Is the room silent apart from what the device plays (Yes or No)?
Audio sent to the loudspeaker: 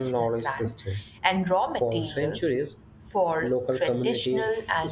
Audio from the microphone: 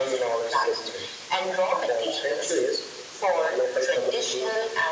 Yes